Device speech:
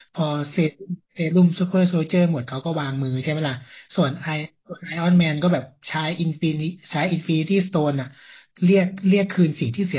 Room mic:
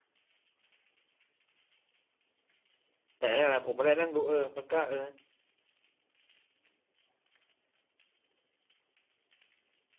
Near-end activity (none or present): present